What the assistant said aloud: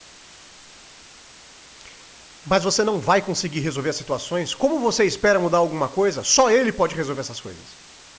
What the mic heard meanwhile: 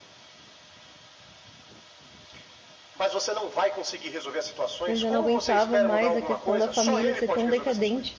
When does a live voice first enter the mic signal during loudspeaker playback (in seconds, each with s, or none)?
4.9 s